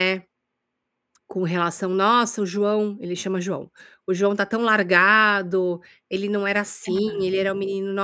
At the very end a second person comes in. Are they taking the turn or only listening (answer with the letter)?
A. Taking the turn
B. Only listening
B